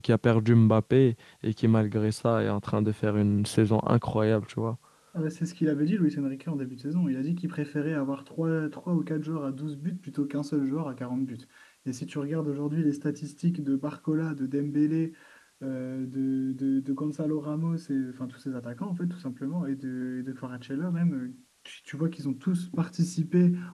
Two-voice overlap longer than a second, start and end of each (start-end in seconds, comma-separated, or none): none